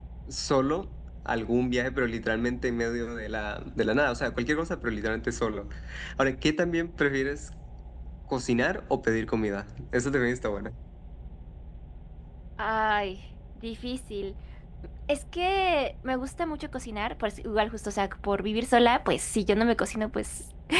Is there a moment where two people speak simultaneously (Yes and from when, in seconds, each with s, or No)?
No